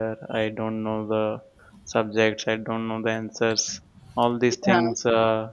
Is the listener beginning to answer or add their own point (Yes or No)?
No